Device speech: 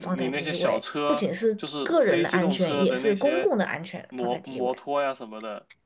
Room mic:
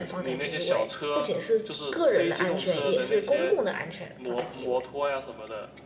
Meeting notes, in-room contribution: none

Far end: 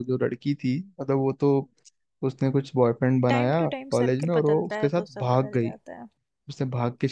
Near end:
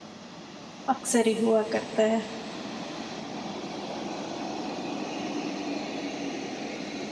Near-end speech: present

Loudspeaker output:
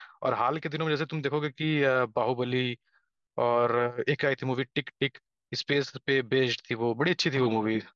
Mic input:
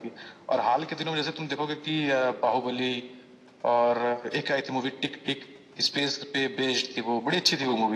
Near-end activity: none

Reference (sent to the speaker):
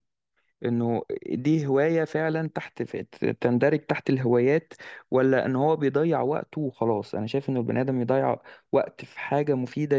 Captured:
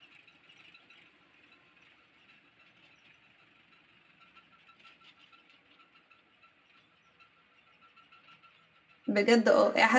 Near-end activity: present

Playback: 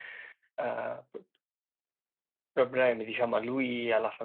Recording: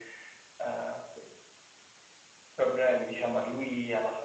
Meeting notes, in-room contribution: none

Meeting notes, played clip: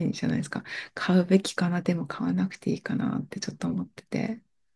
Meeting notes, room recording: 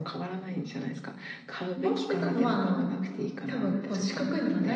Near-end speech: present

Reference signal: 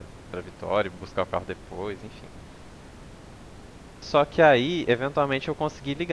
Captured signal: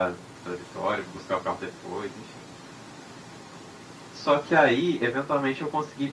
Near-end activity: none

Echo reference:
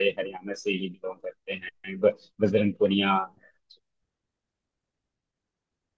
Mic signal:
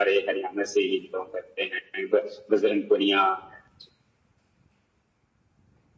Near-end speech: none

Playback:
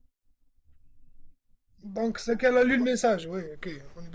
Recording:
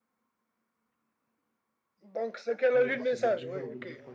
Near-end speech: present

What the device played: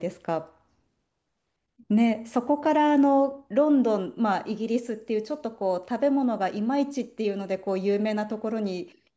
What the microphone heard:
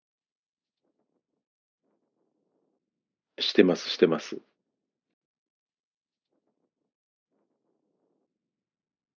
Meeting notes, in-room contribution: present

